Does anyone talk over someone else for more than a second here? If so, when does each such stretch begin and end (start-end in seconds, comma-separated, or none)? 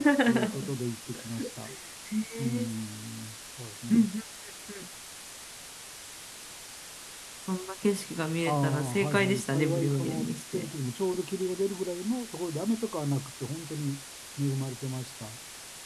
8.4-10.7